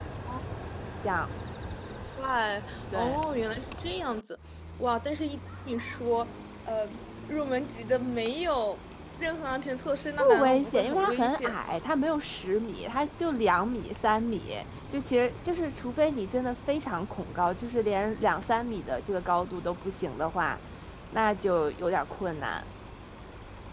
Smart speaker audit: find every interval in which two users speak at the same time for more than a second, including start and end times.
10.2-11.8

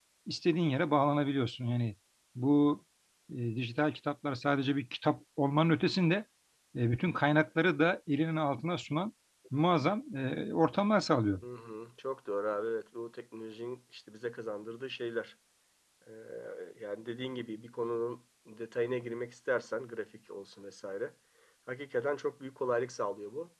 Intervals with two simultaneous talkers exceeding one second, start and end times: none

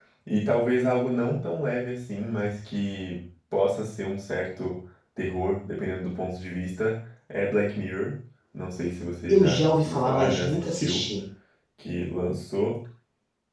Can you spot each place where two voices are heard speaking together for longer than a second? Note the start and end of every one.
9.3-11.1

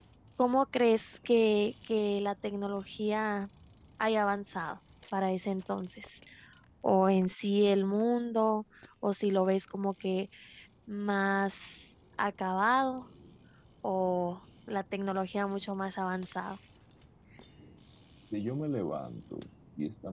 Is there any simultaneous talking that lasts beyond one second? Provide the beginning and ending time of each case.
none

